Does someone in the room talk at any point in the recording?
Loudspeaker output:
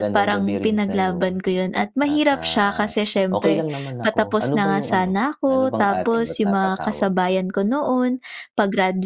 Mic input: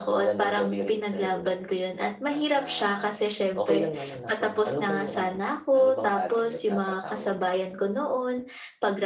Yes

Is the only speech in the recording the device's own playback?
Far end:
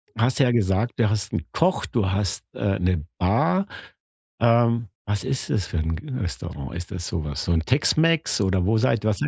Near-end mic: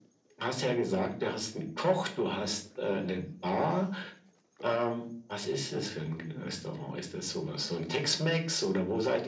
Yes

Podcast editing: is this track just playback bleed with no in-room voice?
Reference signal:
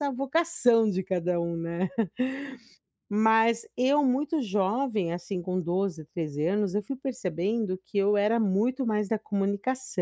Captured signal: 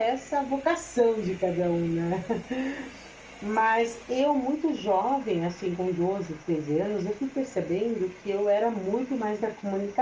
Yes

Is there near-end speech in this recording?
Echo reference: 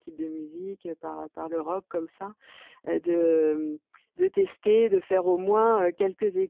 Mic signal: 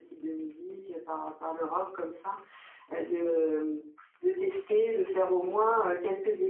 No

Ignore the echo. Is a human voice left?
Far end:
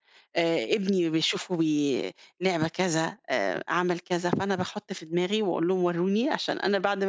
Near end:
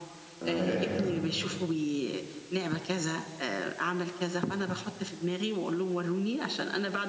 Yes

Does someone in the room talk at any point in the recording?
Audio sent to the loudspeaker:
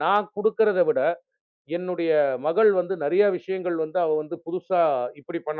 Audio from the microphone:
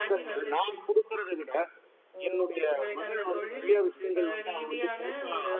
Yes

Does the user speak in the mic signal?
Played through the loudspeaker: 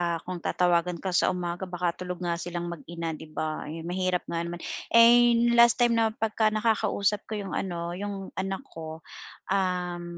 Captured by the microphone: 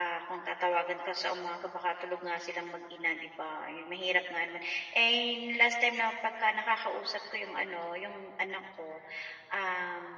No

